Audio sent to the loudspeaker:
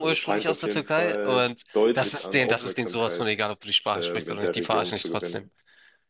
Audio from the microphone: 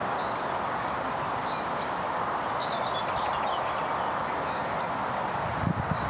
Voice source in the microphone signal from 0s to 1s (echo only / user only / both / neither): neither